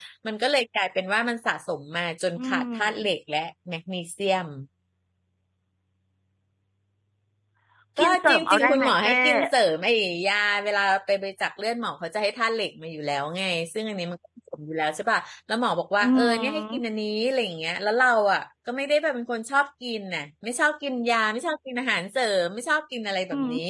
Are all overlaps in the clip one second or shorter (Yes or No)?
No